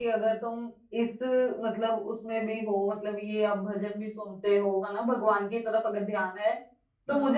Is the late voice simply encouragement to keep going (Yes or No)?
Yes